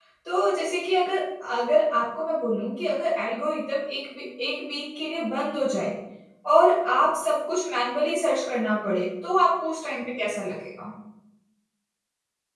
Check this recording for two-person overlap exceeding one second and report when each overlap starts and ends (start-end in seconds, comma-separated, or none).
none